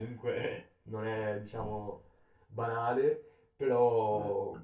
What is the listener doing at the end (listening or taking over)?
listening